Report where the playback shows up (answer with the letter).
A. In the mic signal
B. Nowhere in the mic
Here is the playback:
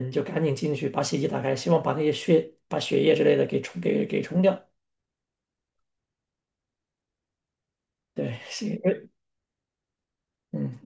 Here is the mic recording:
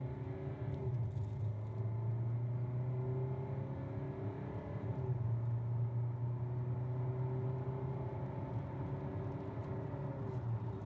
B